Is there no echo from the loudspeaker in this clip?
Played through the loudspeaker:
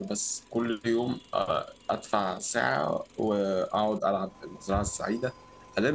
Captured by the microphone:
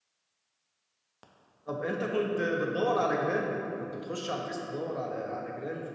Yes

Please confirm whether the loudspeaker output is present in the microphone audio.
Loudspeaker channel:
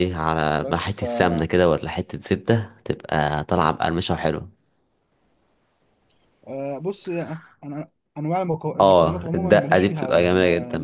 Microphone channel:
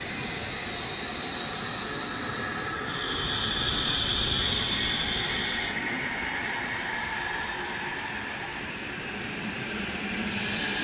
No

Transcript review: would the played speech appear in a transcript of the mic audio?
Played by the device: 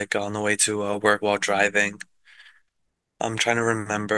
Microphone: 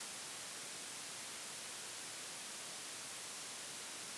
No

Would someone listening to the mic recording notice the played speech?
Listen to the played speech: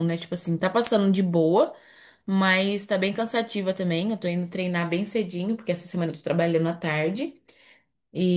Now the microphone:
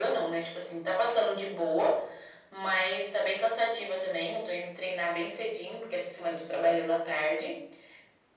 Yes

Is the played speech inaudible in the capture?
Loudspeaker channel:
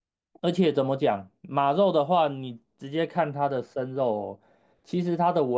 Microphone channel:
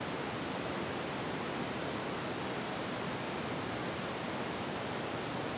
Yes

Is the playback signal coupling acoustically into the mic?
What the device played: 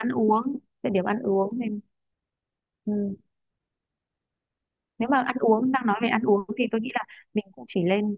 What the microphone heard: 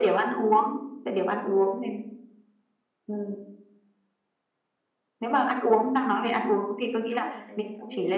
Yes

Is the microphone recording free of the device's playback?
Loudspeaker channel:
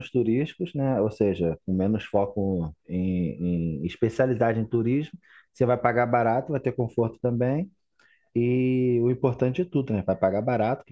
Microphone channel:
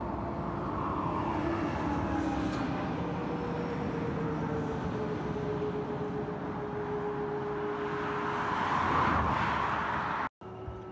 Yes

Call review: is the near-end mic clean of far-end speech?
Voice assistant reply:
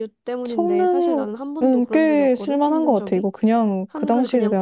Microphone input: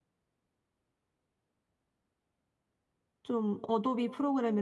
Yes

